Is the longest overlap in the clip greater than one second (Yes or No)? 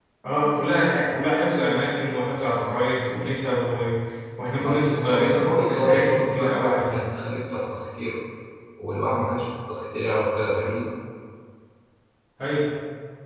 Yes